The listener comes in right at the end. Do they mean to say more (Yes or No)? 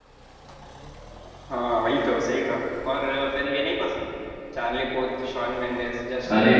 Yes